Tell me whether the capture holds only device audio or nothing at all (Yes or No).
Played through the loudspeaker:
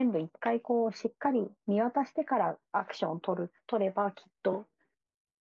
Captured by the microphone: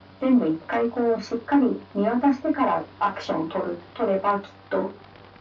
Yes